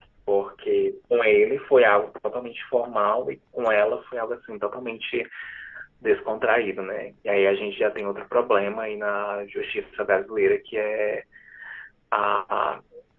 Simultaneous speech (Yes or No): No